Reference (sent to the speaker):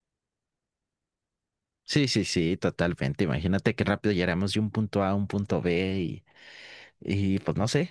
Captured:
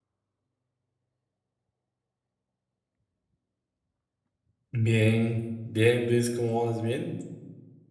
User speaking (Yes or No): Yes